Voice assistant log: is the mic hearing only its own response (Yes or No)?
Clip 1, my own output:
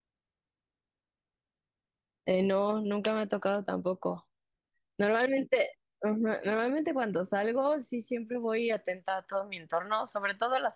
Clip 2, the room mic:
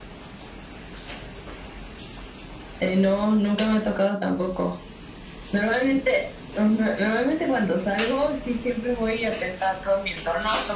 Yes